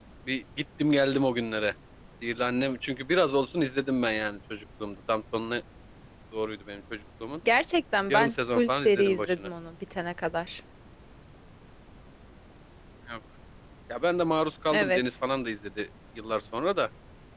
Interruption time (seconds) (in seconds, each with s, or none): 8.1 s